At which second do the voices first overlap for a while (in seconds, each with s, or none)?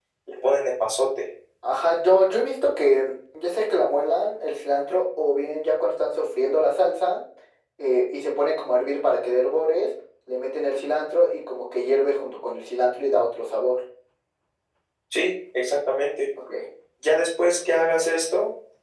none